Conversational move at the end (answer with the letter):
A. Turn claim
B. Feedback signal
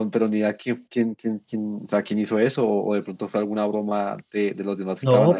A